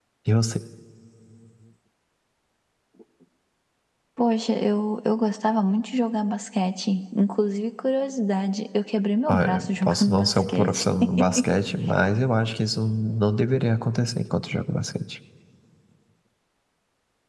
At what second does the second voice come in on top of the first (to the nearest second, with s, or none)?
9 s